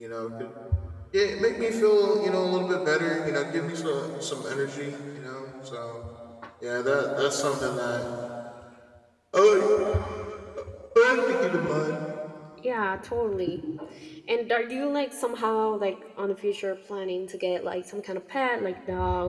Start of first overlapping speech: none

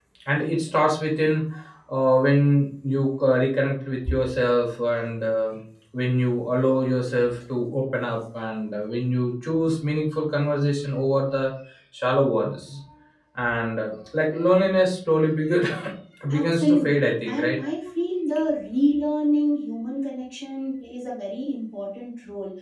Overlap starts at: 16 s

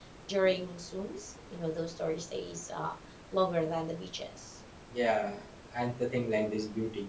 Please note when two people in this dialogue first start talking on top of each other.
none

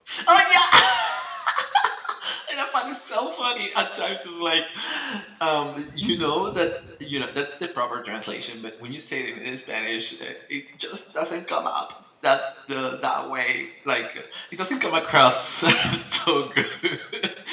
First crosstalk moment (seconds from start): none

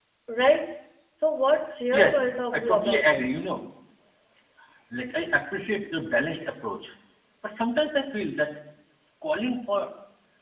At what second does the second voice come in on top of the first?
2 s

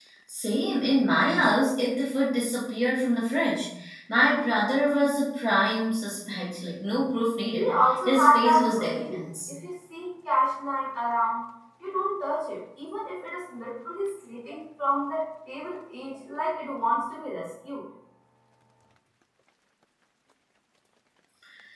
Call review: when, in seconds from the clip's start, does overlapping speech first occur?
8 s

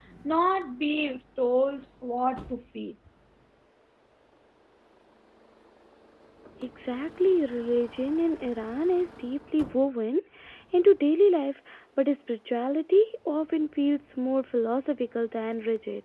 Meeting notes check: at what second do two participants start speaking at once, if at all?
none

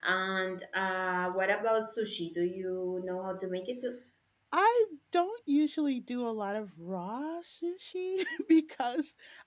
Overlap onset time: none

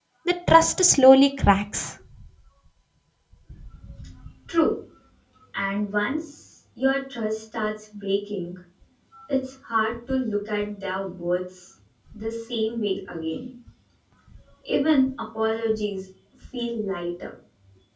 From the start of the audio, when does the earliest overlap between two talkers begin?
none

